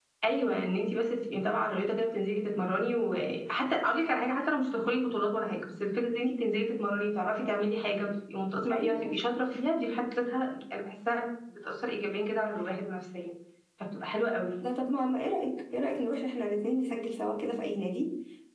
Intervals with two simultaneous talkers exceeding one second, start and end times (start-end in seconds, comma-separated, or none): none